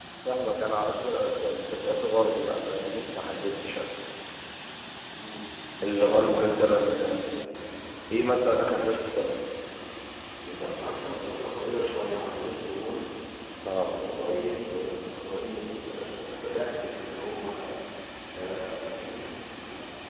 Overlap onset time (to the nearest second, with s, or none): 6 s